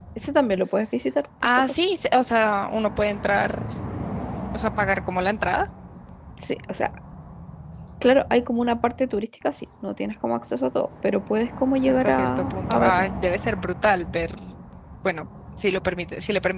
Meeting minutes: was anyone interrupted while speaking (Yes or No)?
Yes